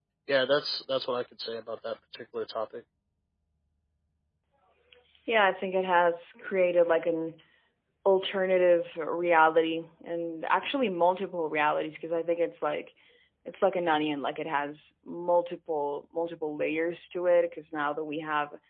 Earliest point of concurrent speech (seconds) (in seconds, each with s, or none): none